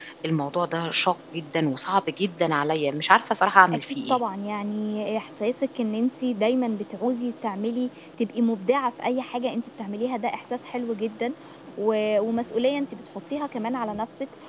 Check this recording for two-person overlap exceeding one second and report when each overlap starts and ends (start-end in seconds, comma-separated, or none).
none